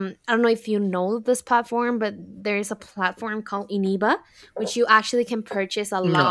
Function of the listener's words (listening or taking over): listening